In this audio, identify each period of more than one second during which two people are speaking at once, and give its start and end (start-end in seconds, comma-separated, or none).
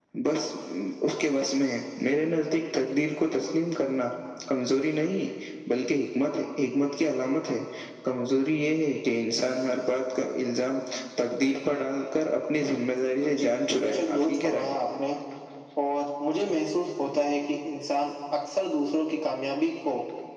13.4-14.7